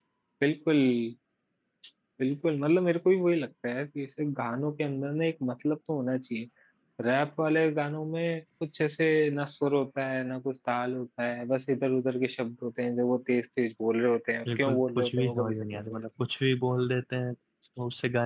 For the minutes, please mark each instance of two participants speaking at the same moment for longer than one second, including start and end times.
14.6-16.0

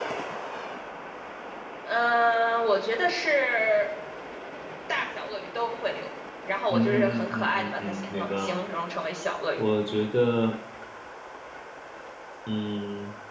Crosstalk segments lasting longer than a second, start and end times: 6.7-8.6

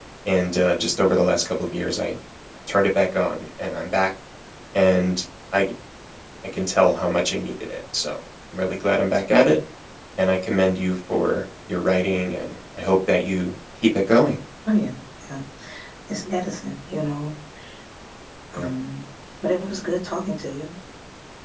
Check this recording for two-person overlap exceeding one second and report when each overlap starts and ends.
none

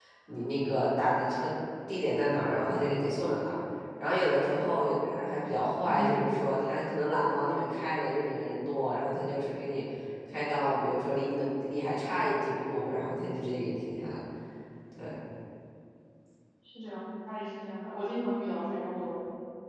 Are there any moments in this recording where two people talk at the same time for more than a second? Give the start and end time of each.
none

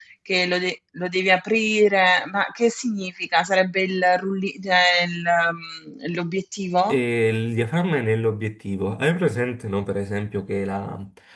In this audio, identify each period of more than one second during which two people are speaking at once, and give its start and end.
none

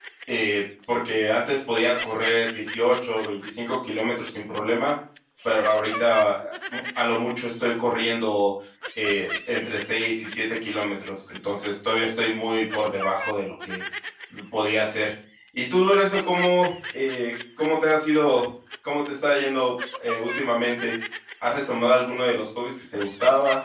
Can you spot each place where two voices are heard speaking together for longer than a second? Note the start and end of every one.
none

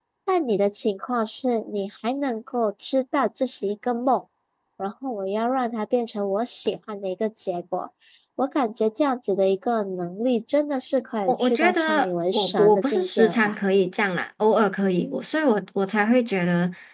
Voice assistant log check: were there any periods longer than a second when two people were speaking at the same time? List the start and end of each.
11.3-13.6

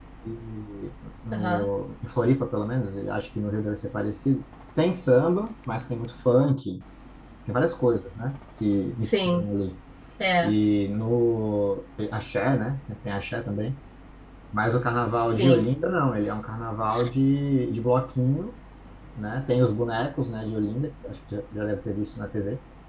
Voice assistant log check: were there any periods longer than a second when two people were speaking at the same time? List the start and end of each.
none

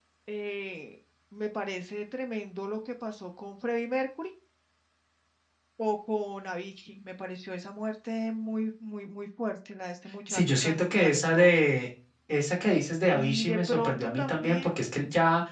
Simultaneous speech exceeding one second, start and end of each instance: 10.3-11.6, 13.1-14.7

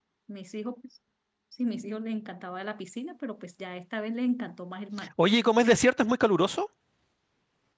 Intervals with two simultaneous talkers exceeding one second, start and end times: none

